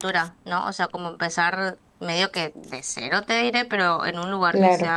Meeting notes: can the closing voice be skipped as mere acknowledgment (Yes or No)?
Yes